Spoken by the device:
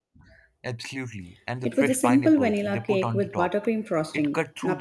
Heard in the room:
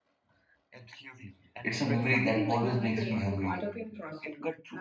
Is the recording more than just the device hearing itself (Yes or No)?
Yes